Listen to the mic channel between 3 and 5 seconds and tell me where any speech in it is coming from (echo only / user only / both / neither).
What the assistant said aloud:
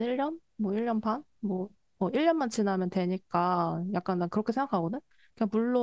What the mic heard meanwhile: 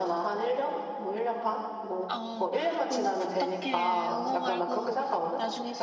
both